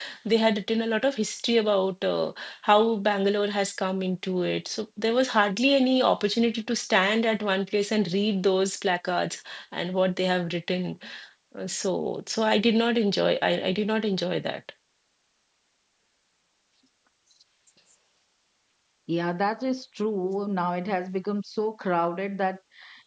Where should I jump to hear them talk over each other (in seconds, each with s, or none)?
none